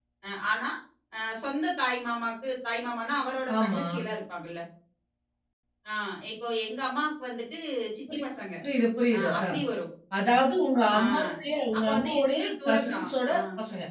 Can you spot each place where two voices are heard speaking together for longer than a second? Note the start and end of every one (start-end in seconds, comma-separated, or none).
11.8-13.4